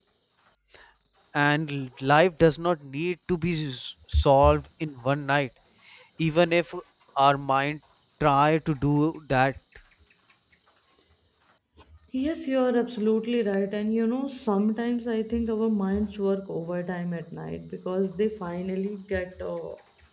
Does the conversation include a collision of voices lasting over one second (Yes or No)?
No